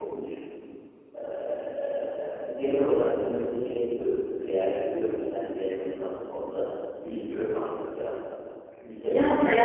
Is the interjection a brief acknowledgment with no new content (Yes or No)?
No